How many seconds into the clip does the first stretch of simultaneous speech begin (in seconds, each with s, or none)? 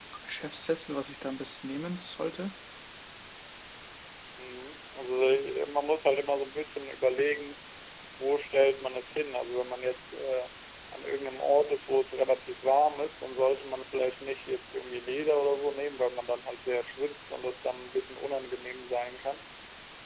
none